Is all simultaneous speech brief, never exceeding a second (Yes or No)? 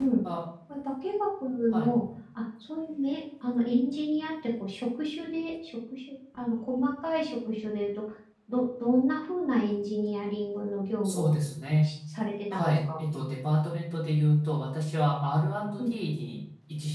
Yes